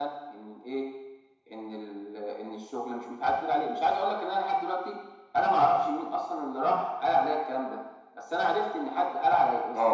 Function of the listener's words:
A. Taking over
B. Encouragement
A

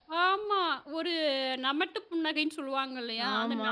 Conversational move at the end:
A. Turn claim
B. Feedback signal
B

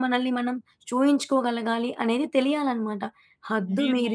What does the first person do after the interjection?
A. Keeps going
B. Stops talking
A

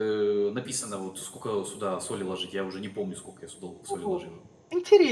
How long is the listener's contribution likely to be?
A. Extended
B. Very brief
A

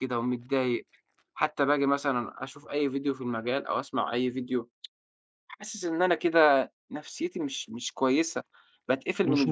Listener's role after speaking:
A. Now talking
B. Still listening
B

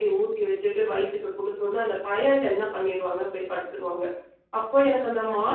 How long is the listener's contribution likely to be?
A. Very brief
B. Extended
A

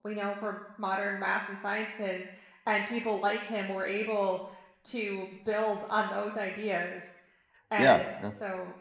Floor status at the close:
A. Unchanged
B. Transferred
A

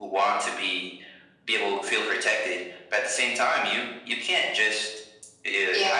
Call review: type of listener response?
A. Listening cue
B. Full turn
A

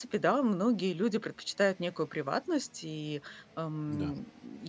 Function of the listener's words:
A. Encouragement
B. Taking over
A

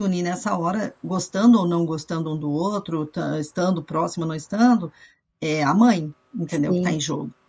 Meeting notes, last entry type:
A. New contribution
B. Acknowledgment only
A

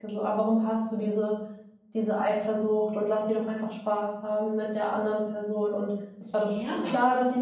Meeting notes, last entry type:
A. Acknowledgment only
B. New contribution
A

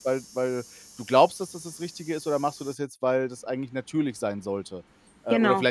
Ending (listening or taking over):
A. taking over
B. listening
B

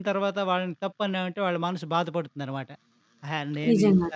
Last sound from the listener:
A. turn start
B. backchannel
B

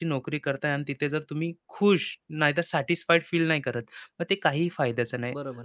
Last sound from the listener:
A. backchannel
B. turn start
B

